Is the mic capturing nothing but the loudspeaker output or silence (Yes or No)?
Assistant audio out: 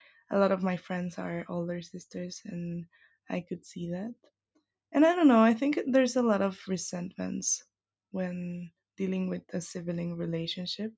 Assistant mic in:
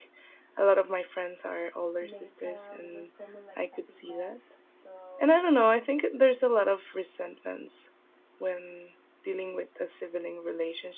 No